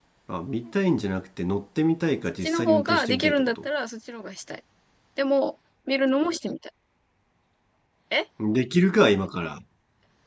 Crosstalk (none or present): present